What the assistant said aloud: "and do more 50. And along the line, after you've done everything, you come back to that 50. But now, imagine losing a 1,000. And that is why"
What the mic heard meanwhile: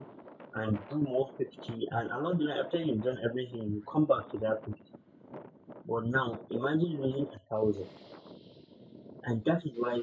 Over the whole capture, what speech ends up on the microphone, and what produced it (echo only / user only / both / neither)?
echo only